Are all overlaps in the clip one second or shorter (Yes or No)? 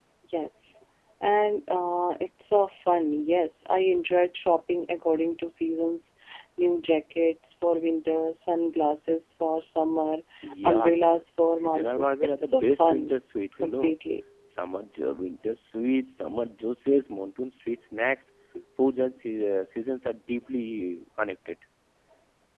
No